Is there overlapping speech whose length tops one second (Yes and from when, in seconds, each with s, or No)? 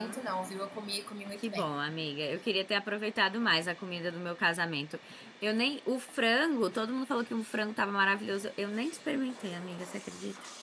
No